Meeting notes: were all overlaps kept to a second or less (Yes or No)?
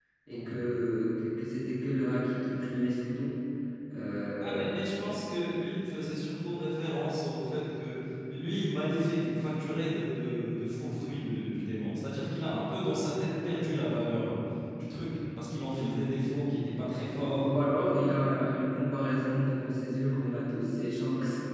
Yes